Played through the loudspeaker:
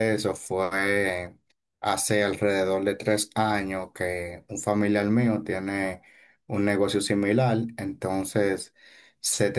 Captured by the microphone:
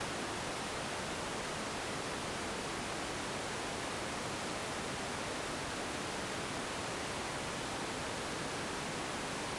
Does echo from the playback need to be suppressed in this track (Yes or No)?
No